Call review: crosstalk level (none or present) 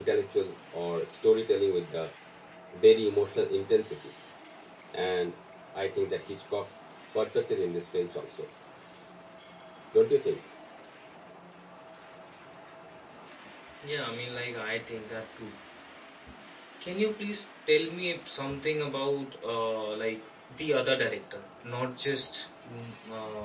none